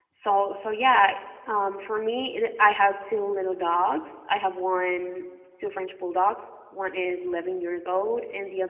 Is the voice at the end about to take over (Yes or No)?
No